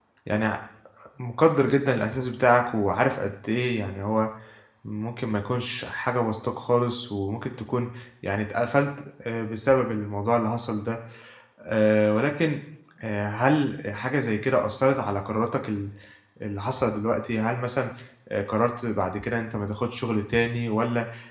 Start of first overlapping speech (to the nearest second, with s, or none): none